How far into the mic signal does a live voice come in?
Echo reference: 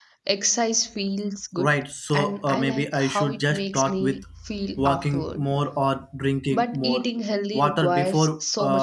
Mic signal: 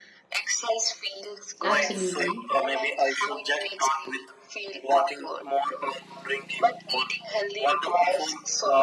1.6 s

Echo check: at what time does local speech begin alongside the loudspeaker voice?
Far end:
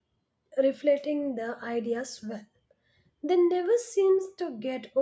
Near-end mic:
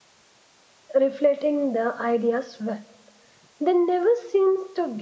none

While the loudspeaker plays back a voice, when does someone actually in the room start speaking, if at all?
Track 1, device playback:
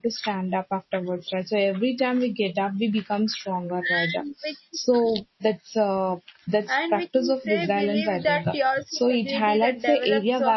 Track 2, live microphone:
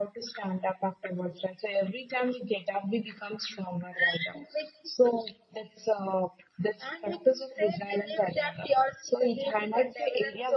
none

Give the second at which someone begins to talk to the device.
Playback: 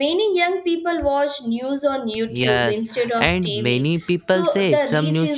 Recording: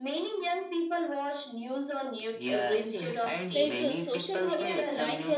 2.5 s

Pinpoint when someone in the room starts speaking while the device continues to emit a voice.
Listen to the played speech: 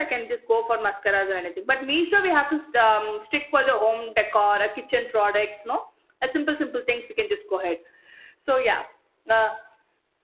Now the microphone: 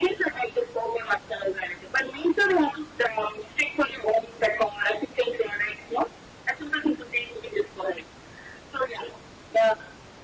none

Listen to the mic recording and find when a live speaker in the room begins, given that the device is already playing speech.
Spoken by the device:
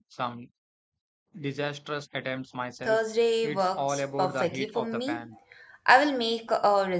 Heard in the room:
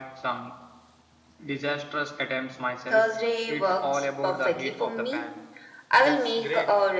6.0 s

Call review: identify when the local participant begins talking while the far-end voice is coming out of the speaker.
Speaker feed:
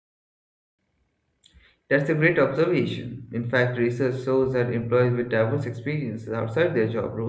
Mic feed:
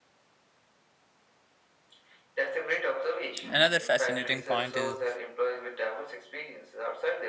3.5 s

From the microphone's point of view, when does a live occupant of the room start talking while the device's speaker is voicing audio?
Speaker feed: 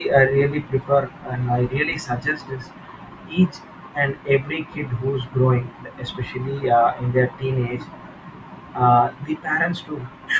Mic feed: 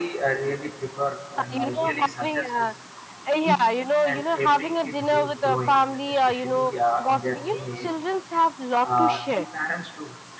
1.4 s

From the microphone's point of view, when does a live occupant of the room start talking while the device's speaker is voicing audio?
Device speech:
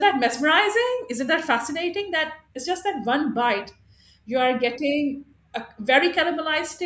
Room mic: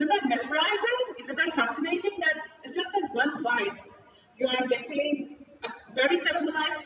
none

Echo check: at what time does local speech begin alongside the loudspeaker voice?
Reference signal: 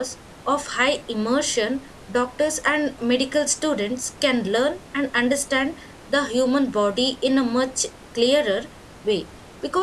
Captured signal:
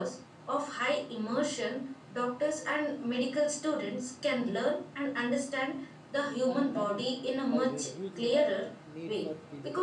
6.5 s

